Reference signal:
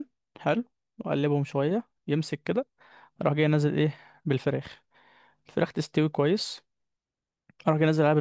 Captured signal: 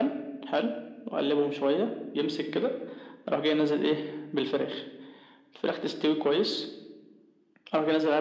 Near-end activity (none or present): none